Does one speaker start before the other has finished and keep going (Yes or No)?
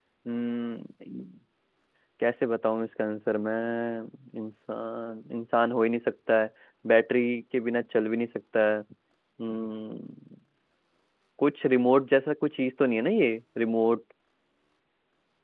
No